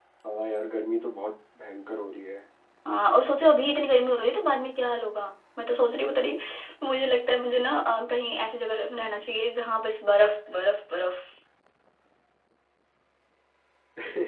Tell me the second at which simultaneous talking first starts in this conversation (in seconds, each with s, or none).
none